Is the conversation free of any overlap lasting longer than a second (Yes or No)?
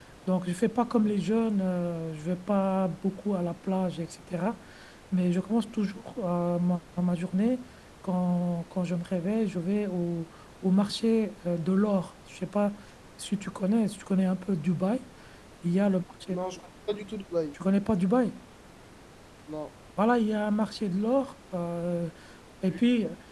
Yes